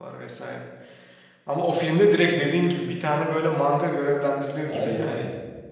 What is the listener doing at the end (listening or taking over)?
taking over